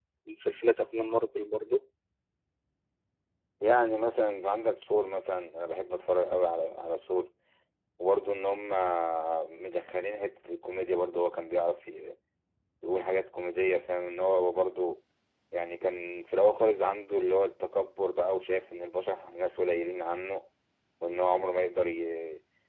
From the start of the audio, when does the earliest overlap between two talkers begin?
none

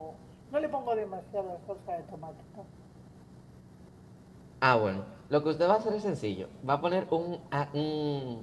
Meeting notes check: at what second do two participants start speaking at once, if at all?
none

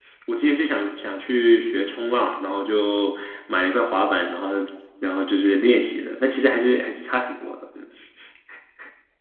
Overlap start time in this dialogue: none

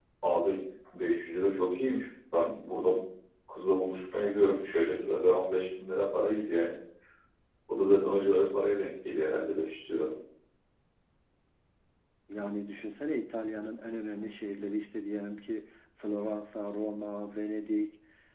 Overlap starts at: none

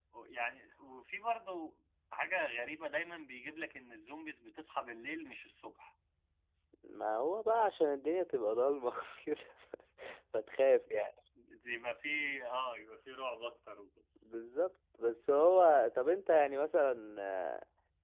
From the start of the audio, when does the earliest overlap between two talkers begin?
none

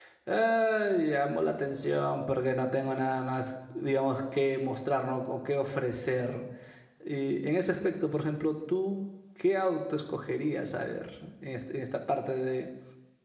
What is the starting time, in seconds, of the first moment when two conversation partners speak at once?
none

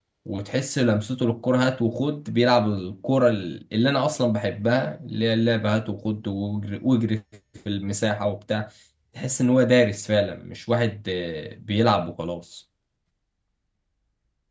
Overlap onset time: none

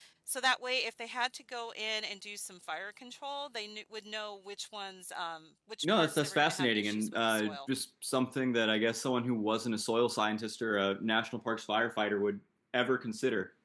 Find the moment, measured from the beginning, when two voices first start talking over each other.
5.8 s

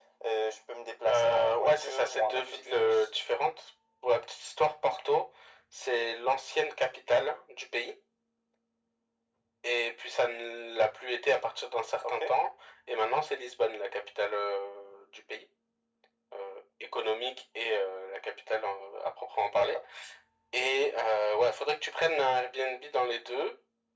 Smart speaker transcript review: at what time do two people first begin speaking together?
1.1 s

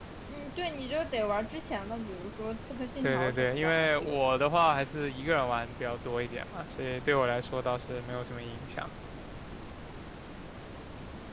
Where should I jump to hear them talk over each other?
3.0 s

